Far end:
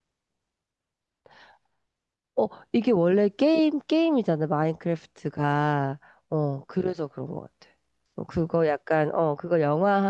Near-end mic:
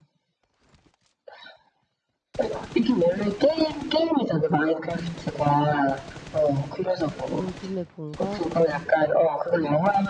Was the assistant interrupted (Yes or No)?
Yes